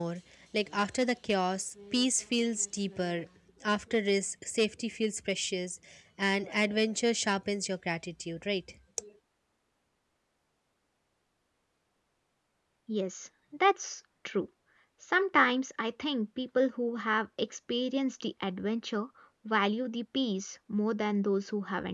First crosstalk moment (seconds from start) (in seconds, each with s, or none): none